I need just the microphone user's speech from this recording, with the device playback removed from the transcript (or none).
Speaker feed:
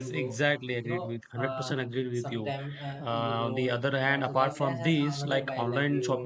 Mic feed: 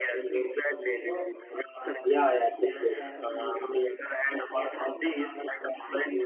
Yeah, yeah, totally.